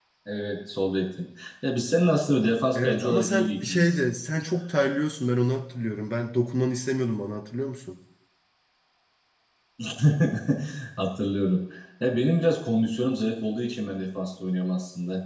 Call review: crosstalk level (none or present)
present